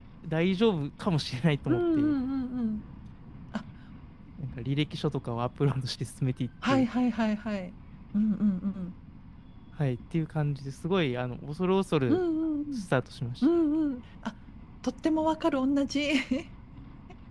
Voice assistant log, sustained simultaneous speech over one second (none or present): none